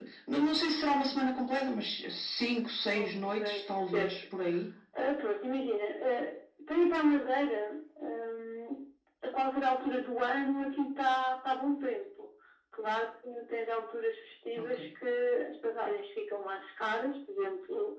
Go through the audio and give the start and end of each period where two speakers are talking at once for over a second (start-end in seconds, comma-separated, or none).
2.9-4.2